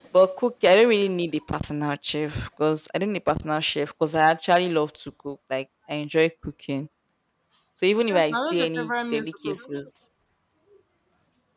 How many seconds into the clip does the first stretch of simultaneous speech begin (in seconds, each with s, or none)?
8.1 s